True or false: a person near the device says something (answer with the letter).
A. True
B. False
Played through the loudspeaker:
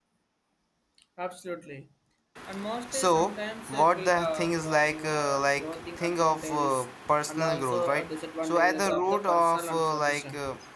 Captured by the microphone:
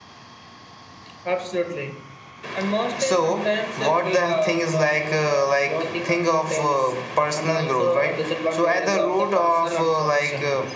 B